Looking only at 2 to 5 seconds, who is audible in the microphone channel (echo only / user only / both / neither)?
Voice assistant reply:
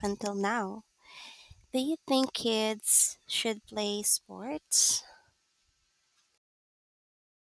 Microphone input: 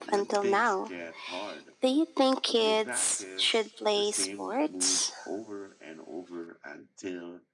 both